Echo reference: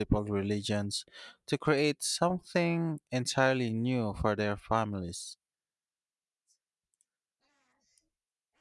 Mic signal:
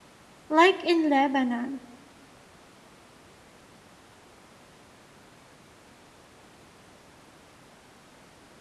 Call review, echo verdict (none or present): none